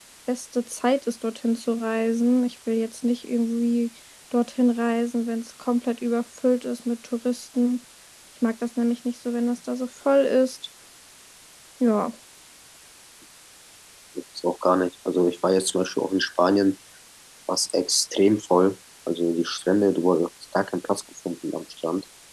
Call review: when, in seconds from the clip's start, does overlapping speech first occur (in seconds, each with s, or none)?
none